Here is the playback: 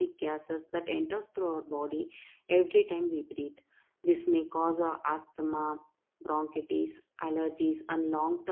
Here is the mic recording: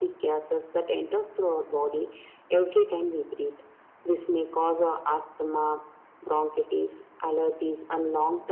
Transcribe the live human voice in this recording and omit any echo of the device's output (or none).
none